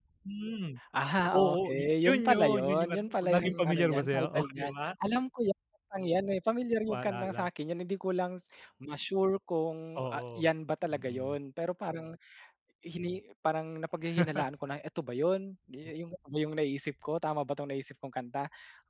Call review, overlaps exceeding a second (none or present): present